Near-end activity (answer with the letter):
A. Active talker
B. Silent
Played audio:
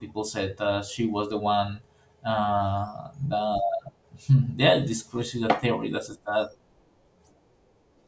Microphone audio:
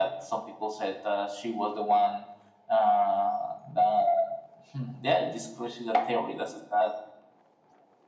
B